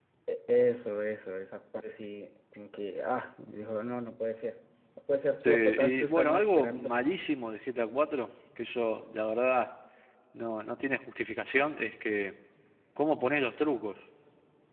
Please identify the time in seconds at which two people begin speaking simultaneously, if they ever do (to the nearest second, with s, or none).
5 s